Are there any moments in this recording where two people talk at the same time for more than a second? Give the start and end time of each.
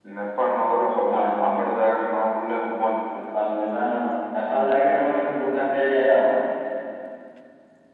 none

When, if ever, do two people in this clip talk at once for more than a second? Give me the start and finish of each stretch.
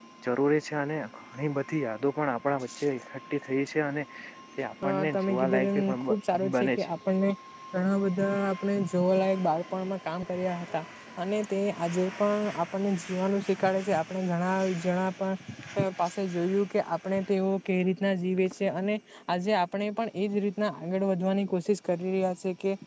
4.8-6.1

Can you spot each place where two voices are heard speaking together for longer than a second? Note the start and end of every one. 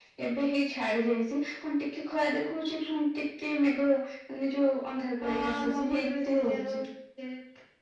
5.2-6.8

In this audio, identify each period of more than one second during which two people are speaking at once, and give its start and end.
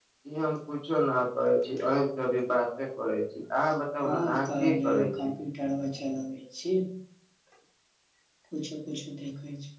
4.0-5.3

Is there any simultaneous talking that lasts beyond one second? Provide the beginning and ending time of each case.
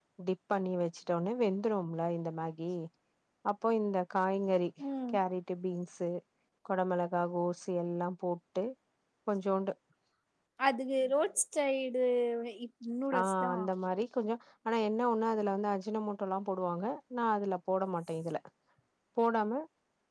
none

